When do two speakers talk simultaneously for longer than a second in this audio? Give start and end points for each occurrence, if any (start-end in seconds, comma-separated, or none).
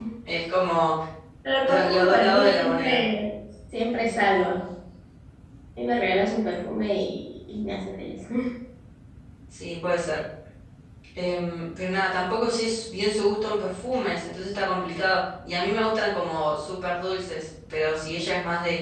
1.6-3.0